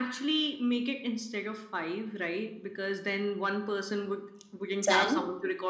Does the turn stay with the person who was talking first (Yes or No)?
Yes